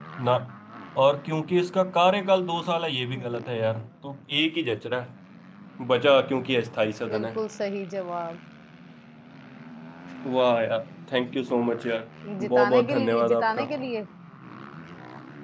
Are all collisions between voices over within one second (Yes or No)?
No